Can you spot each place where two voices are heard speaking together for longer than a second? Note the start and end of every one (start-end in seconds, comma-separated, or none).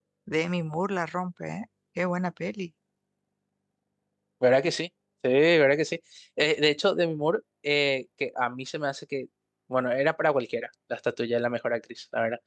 none